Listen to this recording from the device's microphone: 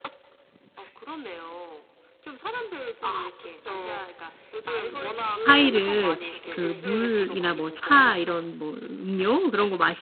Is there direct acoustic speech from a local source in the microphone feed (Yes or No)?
Yes